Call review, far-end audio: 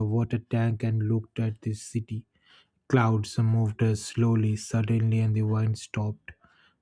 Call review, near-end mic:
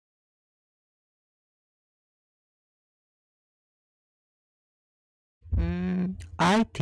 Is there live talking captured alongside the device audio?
Yes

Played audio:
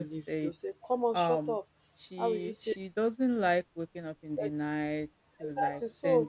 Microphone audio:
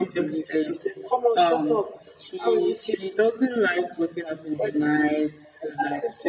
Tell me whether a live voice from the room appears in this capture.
No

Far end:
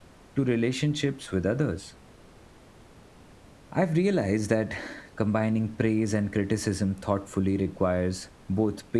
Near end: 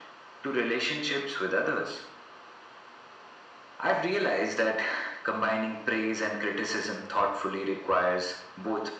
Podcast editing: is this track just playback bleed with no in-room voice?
Yes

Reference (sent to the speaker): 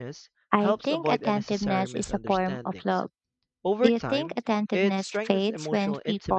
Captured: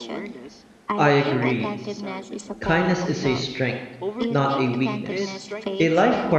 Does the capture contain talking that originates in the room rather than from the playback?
Yes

